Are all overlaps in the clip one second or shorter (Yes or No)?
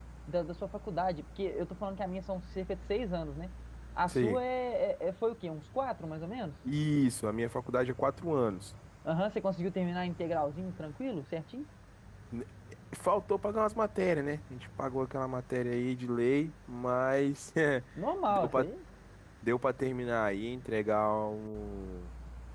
Yes